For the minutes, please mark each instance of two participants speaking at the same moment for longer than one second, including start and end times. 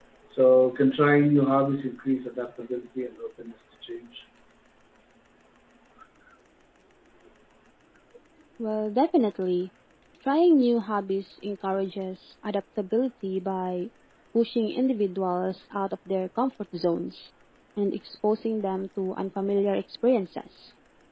none

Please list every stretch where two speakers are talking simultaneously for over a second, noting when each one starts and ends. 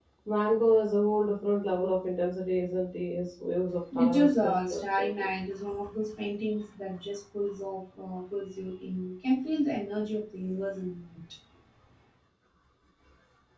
4.0-5.3

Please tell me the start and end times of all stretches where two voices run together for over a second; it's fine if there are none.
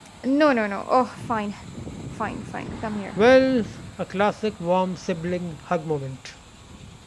none

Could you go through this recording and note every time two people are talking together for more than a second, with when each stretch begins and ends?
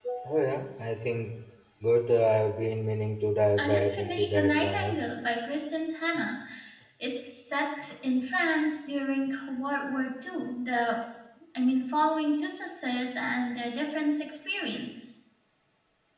3.6-5.0

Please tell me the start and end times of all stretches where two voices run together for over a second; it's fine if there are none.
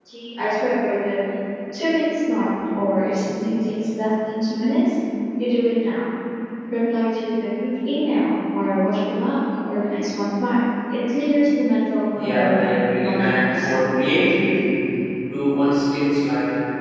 12.2-13.7

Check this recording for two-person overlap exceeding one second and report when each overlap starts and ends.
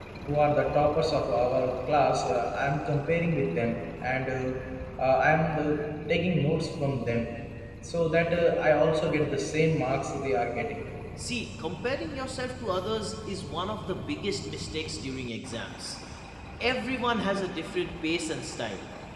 none

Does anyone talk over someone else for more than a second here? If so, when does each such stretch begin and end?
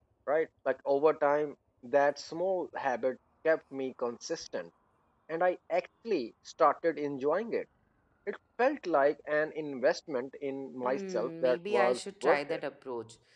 10.8-12.6

